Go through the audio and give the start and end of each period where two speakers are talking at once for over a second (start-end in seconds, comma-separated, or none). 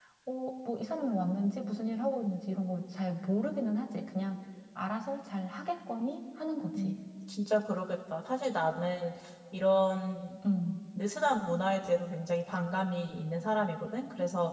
none